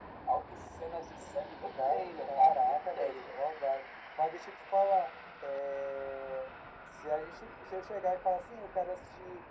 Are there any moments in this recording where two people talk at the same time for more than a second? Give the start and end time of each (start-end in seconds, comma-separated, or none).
1.8-3.4